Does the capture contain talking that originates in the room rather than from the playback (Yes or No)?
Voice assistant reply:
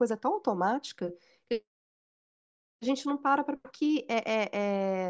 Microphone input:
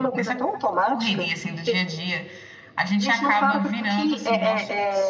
Yes